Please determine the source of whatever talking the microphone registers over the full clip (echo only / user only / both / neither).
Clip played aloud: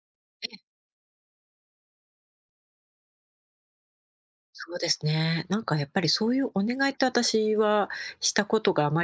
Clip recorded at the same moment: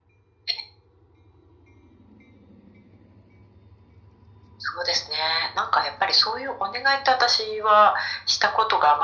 echo only